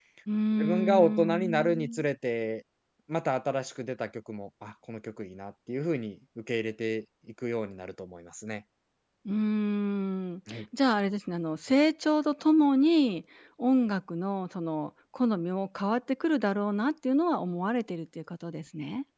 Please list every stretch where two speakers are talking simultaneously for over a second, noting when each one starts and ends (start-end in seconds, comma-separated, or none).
0.6-2.0